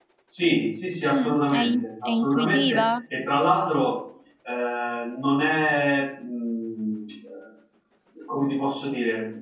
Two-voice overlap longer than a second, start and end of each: 1.1-2.9

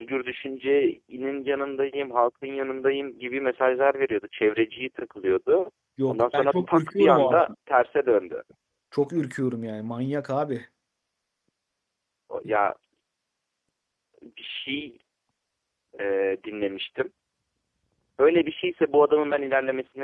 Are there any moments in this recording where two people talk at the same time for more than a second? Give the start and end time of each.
6.1-7.5

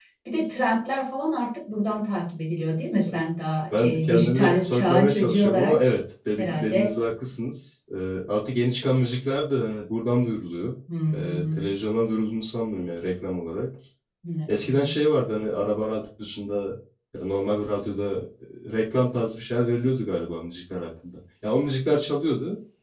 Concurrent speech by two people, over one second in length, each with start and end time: 3.8-5.8

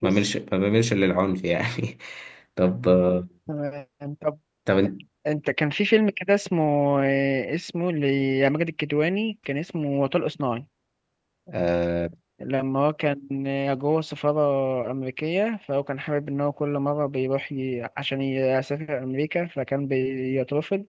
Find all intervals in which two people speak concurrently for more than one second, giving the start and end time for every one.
none

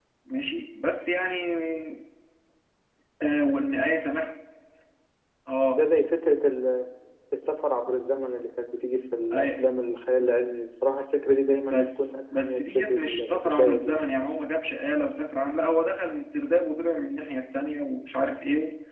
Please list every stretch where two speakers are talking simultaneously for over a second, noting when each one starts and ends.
11.7-14.0

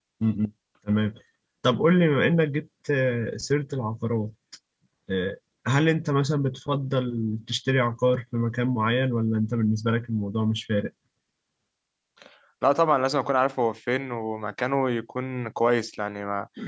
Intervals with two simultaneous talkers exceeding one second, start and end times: none

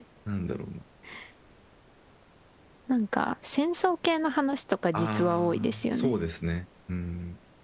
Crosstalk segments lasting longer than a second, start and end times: 4.9-6.1

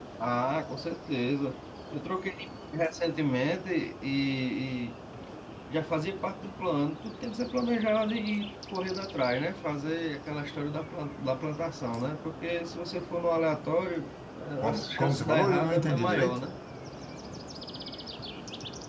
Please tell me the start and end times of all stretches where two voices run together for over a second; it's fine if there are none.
14.6-16.4

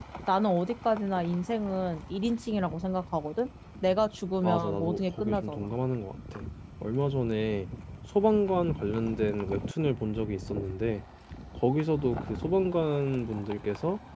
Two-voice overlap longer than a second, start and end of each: 4.4-5.7

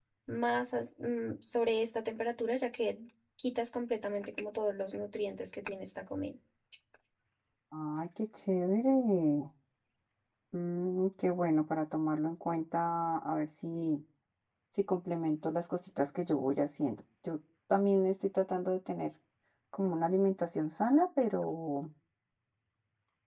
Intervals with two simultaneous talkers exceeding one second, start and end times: none

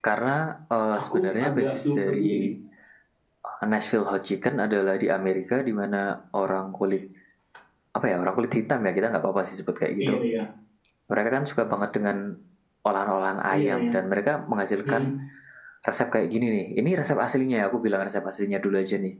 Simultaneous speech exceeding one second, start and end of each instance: 1.0-2.5

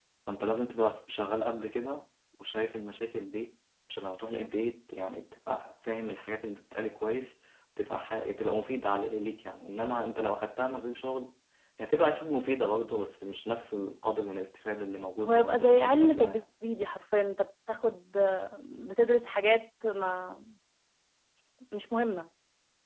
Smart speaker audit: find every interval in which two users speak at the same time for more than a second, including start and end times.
15.2-16.4

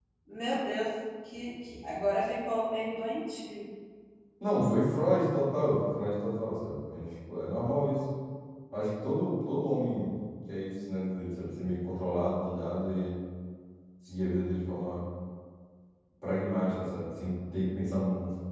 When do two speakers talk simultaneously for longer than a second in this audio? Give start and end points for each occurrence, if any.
none

